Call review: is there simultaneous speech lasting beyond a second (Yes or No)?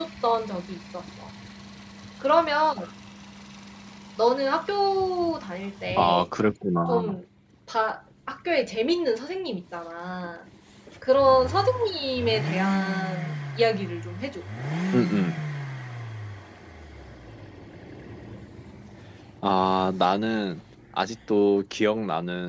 No